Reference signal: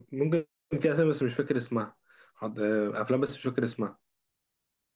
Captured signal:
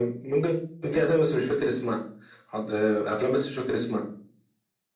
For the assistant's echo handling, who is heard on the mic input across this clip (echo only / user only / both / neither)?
echo only